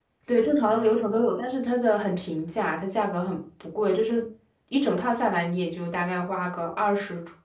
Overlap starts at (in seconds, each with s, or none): none